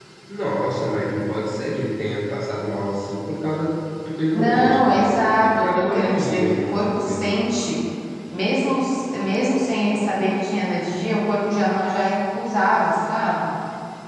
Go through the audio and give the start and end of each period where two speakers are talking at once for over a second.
4.3-7.2

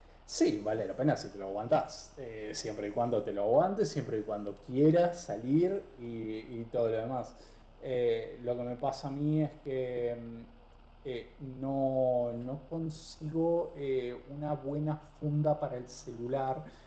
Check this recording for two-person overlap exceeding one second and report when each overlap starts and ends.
none

